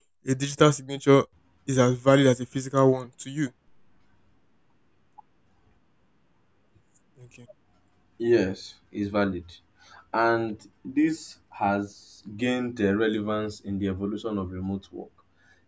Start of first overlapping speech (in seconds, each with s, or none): none